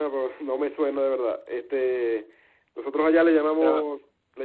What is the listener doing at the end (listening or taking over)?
listening